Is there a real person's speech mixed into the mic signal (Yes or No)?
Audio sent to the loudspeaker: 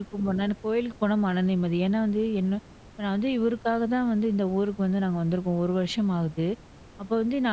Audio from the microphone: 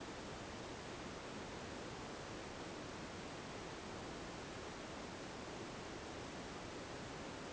No